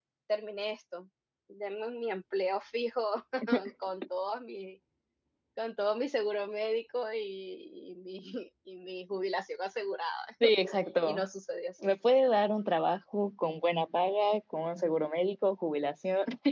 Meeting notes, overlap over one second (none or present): none